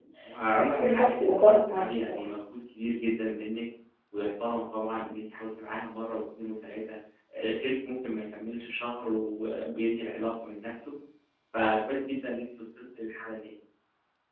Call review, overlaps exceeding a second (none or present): present